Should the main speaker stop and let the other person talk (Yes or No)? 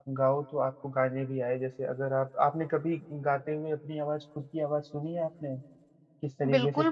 Yes